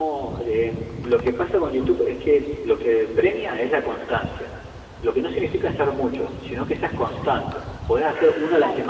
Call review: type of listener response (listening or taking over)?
listening